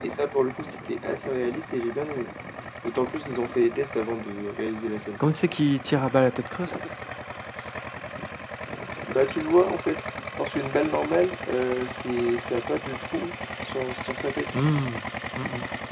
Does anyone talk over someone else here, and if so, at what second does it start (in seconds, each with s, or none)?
none